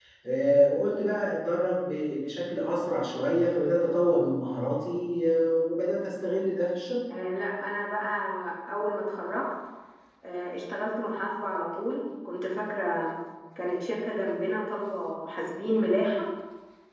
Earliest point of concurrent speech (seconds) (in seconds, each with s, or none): none